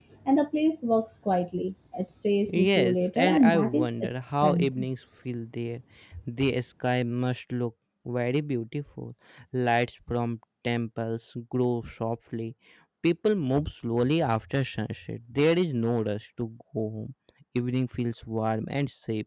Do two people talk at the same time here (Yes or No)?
Yes